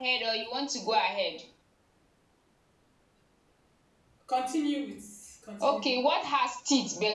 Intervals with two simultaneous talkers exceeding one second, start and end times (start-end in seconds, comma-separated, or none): none